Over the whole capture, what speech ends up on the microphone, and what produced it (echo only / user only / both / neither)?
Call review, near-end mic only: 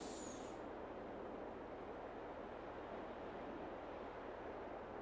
neither